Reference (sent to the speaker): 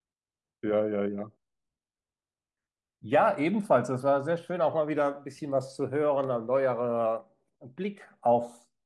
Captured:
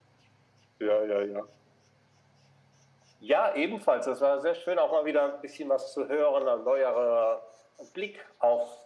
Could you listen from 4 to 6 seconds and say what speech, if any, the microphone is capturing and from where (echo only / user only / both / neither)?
echo only